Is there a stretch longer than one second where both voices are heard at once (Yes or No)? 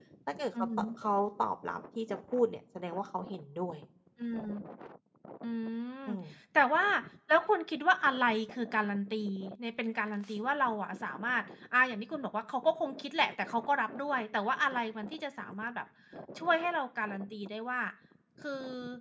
No